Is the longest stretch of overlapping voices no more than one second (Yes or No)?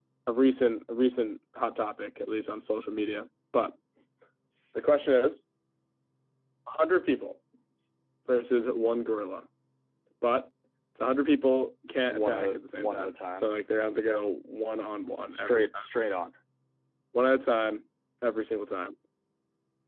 No